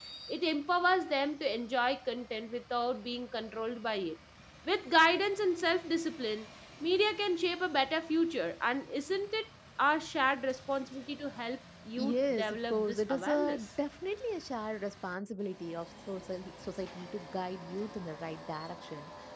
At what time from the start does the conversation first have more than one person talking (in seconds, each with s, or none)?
12.0 s